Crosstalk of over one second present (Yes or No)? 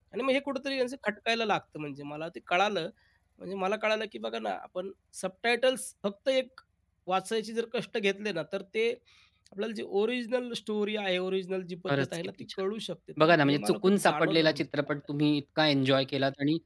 Yes